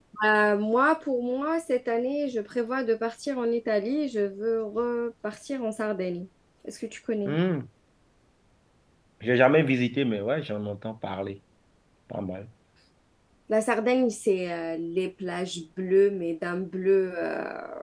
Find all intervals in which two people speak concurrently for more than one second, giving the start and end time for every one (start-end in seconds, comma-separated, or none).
none